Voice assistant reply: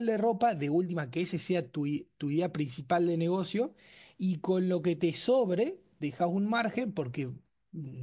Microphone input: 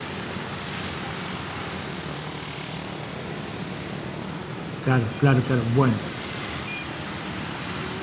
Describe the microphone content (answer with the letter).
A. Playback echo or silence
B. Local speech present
B